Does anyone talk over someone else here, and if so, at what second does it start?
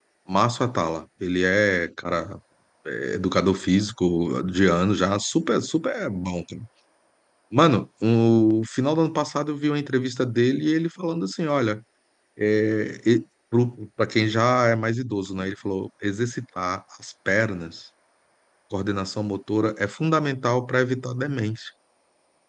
none

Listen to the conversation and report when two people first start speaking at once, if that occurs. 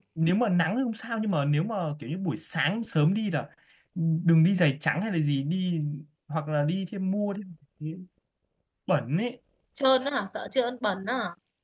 none

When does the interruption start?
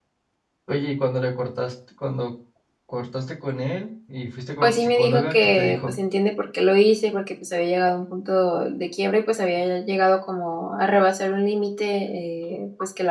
5 s

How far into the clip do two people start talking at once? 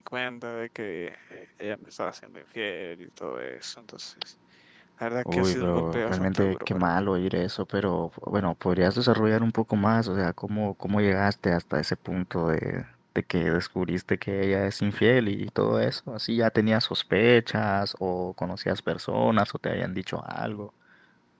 5 s

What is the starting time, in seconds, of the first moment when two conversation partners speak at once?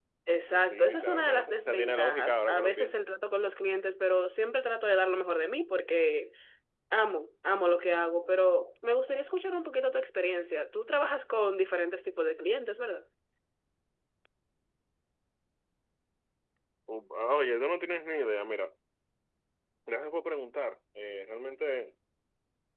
1 s

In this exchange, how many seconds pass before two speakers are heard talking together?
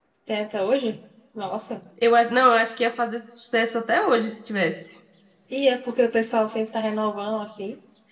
none

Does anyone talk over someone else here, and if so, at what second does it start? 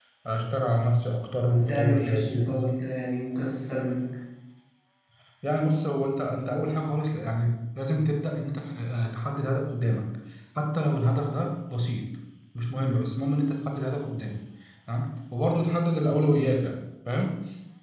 1 s

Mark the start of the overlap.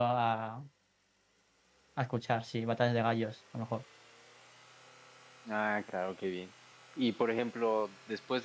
none

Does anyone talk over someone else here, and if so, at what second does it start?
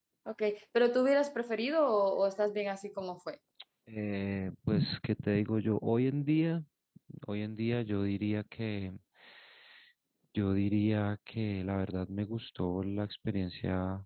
none

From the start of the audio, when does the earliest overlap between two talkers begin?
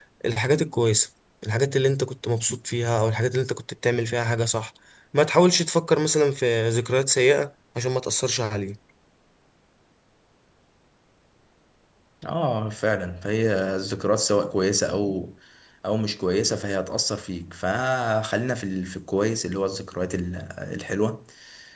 none

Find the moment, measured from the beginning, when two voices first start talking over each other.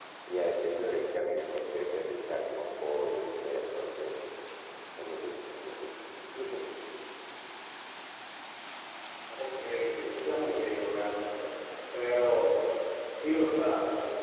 none

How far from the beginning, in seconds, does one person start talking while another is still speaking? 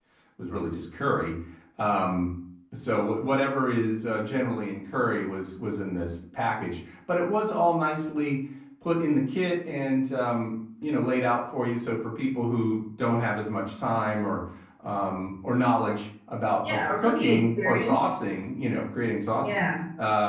17 s

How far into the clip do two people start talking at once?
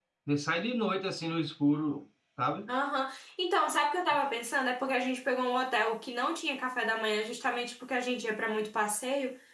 none

